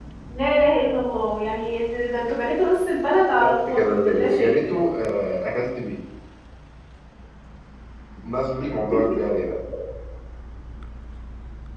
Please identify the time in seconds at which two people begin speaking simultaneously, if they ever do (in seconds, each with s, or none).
3.4 s